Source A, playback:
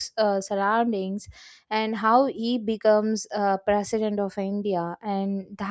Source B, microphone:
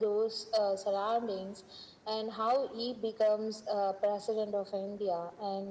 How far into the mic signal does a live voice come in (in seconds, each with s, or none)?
none